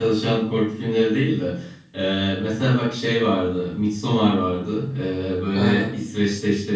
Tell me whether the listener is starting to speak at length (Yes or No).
No